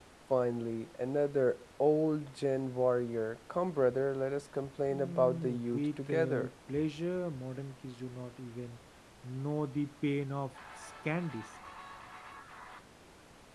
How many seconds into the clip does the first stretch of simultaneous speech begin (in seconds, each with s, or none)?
4.9 s